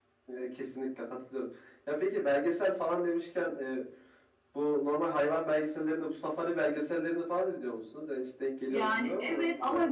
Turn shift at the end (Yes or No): Yes